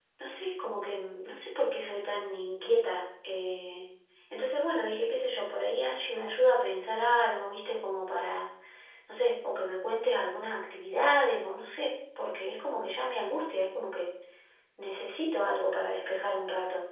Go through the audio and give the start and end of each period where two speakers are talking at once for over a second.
none

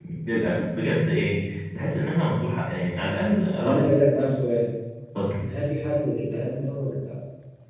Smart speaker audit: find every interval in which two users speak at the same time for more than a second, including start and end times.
none

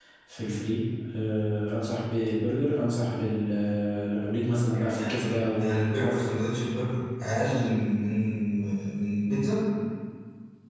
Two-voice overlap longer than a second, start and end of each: 4.7-6.3

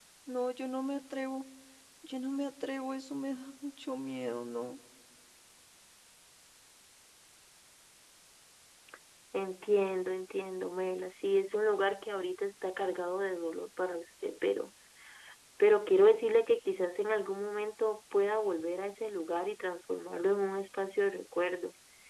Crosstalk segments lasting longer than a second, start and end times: none

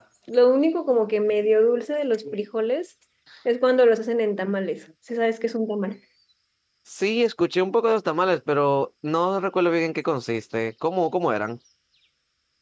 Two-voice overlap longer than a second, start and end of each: none

